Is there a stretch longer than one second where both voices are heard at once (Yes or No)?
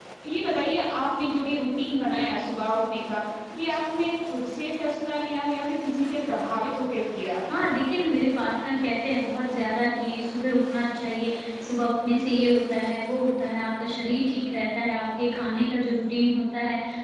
No